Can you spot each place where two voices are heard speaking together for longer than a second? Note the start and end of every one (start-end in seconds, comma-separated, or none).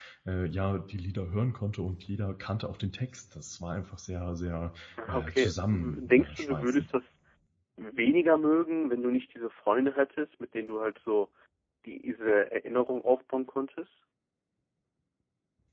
5.0-6.8